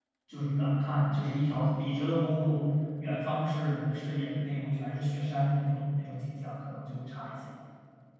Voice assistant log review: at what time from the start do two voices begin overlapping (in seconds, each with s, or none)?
none